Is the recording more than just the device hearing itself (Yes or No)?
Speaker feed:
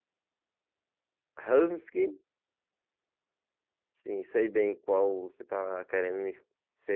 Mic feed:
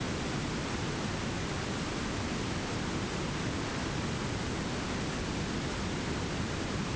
No